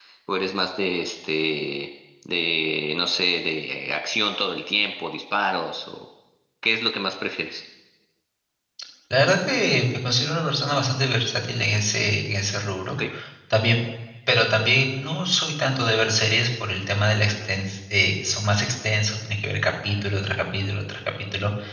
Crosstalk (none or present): none